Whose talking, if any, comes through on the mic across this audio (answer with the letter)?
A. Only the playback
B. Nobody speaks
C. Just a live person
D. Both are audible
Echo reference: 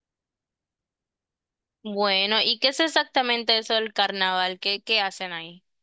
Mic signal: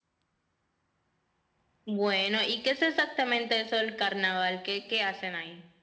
A